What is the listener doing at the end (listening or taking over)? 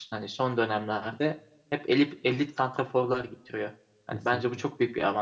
listening